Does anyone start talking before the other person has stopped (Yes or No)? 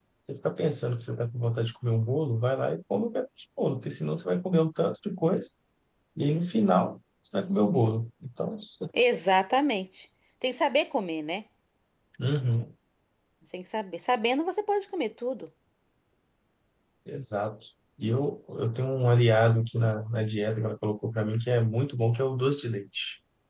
No